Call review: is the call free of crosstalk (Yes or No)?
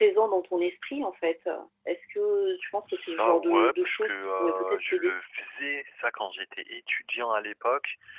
No